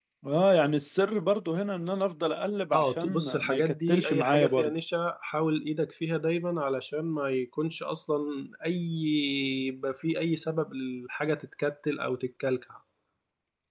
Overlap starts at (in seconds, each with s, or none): 2.7 s